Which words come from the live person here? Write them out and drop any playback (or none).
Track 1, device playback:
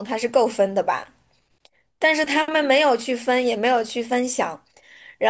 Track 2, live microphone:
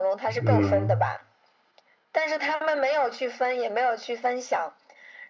嗯，